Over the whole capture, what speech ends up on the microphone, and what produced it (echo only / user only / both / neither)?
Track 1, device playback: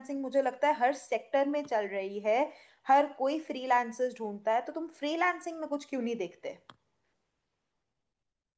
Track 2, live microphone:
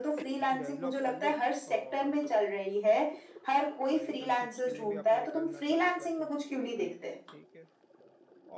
both